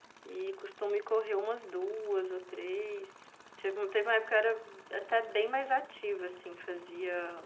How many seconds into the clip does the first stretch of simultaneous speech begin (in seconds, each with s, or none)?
none